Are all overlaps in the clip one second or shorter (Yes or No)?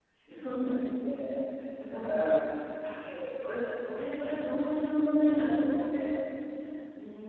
Yes